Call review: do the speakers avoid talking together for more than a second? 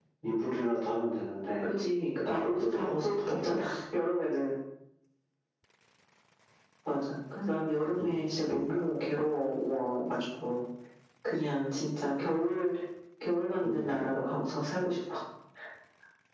No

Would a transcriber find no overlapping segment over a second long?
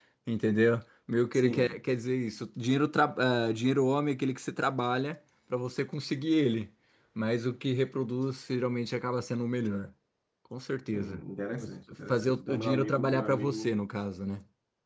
No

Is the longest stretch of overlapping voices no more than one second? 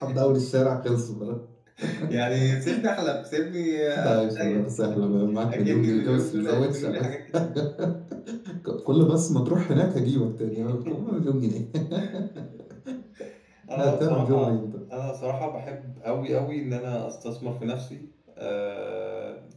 No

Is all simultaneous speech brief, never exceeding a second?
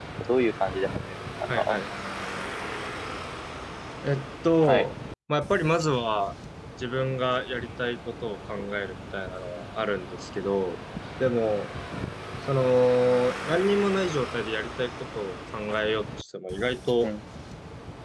Yes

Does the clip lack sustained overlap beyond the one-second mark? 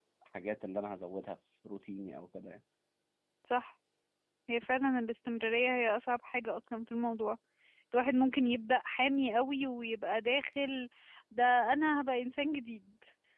Yes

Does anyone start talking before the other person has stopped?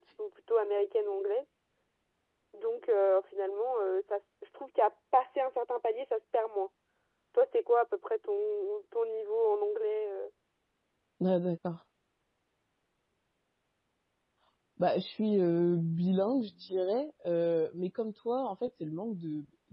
No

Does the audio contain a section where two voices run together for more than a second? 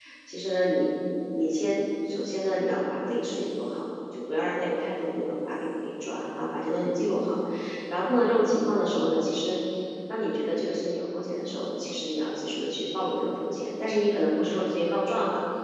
No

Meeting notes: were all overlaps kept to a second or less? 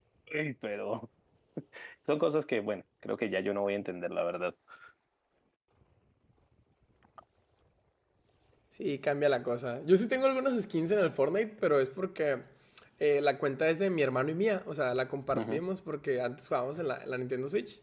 Yes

